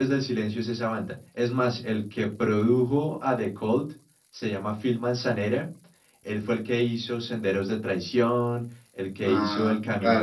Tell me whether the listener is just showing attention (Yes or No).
No